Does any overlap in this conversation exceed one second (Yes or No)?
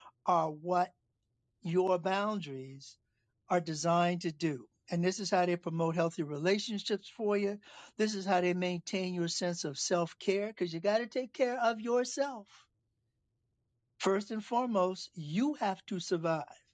No